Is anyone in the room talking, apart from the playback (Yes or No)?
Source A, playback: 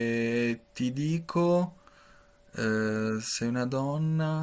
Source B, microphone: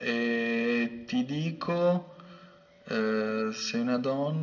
No